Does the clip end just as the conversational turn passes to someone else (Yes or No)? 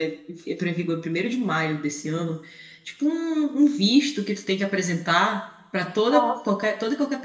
No